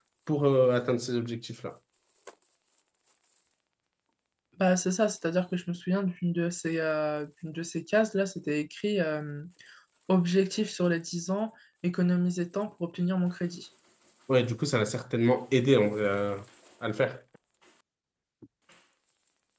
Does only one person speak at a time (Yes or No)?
Yes